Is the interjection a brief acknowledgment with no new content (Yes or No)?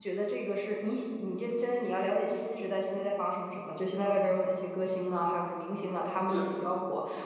Yes